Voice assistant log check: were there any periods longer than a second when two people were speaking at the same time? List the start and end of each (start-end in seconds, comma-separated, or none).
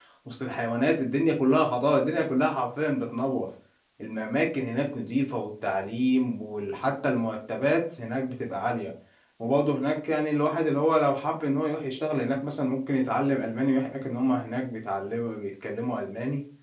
none